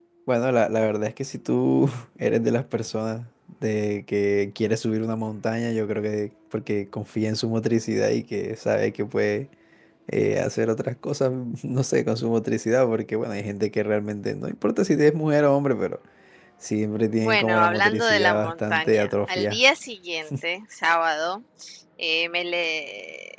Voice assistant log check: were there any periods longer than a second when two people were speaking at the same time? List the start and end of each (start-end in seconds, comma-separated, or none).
17.2-19.6